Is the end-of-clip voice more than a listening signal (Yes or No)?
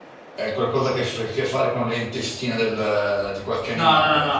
Yes